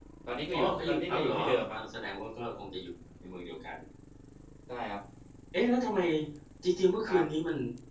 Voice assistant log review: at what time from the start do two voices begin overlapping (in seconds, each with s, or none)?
0.5 s